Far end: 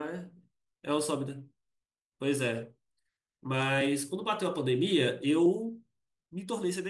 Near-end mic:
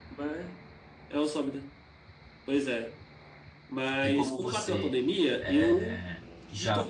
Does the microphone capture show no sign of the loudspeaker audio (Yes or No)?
No